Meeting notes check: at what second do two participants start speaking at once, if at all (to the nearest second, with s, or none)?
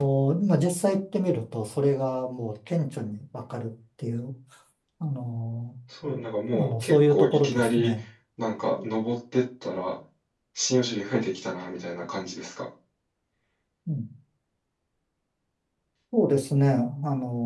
7 s